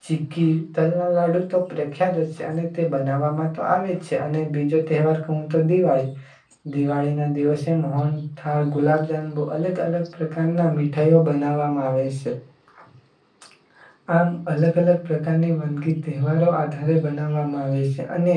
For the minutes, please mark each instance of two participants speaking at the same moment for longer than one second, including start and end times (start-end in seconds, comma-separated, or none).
none